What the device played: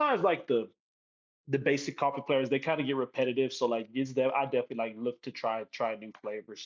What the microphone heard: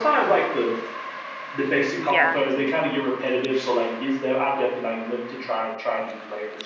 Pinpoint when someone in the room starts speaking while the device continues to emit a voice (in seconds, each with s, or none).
1.9 s